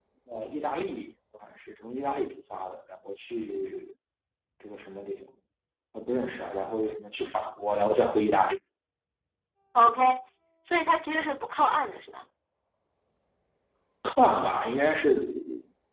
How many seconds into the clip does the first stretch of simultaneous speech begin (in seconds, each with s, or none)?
none